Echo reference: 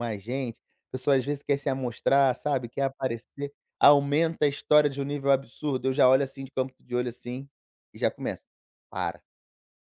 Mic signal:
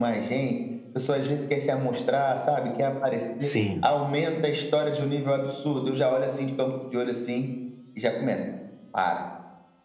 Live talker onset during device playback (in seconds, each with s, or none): 3.4 s